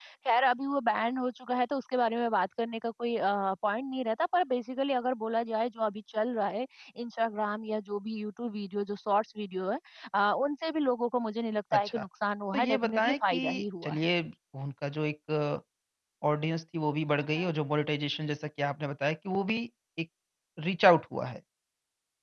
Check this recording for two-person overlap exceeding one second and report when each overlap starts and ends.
12.5-14.1

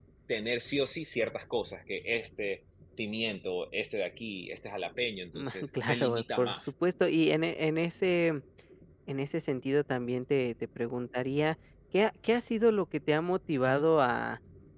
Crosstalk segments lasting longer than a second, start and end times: 5.3-6.7

